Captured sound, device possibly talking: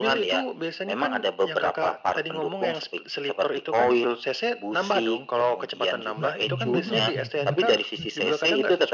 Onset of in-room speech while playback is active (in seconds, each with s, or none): 6.2 s